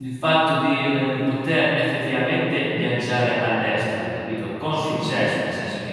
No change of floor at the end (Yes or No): Yes